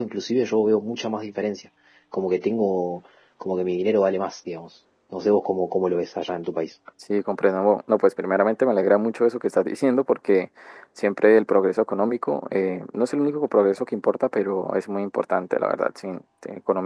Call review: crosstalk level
none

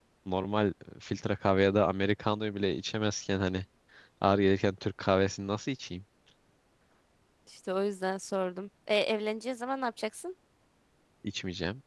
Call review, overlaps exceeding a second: none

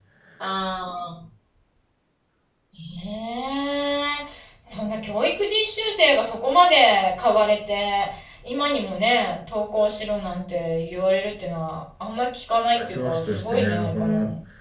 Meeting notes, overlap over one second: present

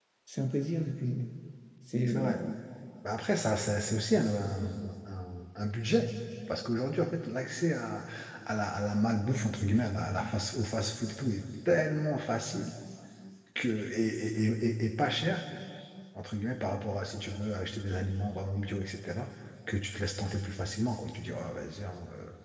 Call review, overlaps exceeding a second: none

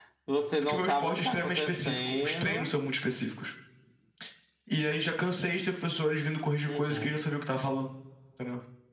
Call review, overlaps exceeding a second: present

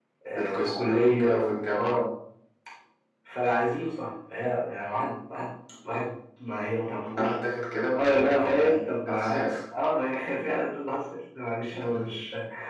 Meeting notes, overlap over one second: present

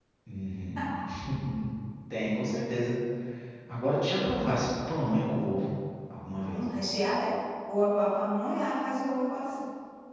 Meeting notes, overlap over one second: none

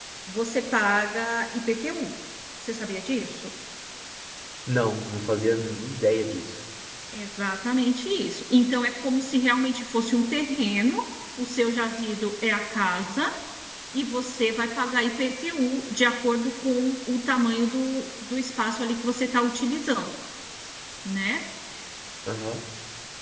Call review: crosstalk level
none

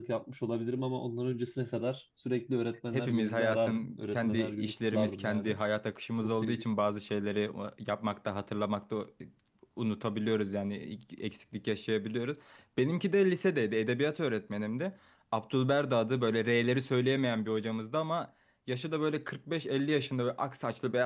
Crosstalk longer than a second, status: present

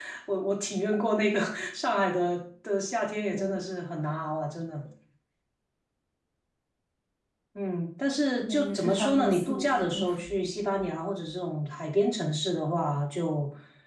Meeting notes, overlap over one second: present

